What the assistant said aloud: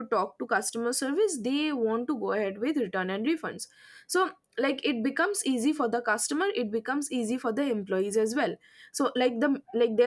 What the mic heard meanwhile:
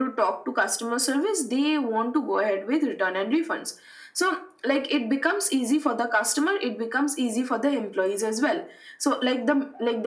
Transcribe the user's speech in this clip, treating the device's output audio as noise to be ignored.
none

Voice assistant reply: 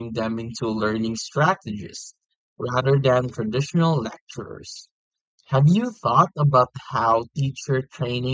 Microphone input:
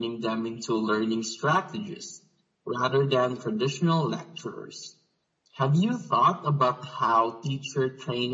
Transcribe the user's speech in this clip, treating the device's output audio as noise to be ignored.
none

